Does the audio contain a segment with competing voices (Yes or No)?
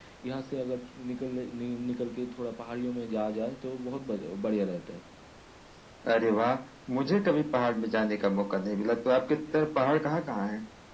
No